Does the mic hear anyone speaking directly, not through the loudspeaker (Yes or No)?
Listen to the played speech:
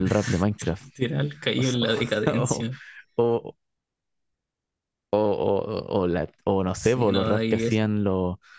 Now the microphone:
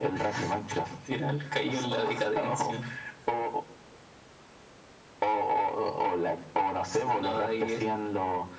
No